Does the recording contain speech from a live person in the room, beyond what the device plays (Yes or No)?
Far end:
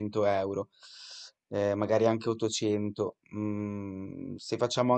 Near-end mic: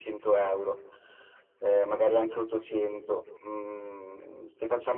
No